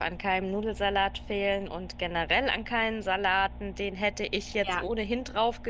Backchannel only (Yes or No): Yes